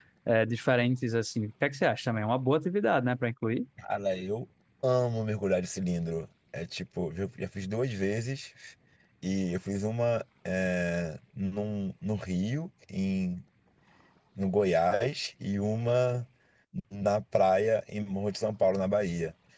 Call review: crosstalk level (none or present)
none